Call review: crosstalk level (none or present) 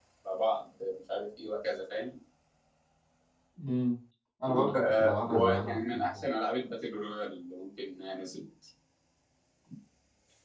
present